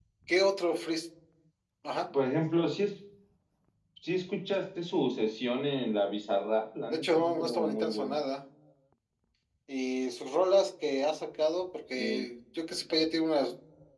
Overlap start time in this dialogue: 7 s

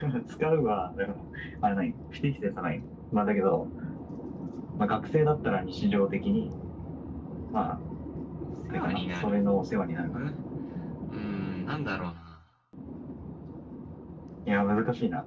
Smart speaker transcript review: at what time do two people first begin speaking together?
9 s

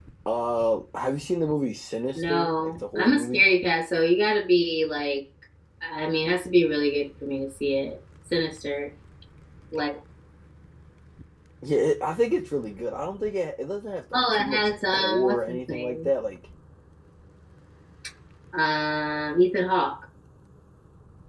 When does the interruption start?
2 s

